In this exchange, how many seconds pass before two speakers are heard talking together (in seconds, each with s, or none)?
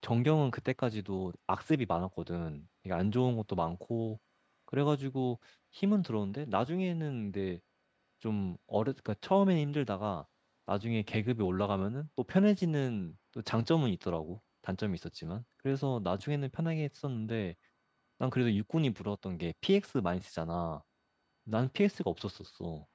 none